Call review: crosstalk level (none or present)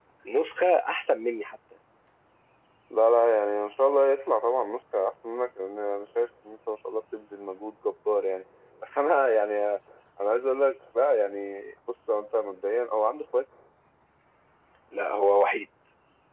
none